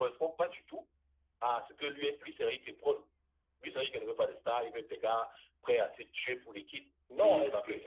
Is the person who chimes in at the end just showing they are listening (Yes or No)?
No